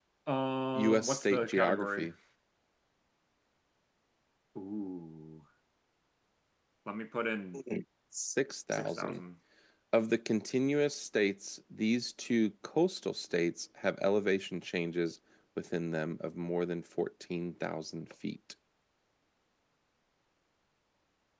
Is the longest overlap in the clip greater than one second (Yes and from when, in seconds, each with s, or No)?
Yes, from 0.8 s